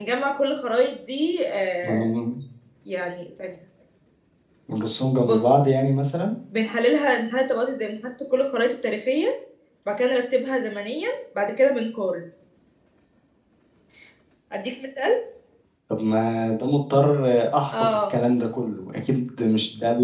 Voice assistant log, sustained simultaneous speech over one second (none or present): none